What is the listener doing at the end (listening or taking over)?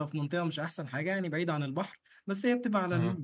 listening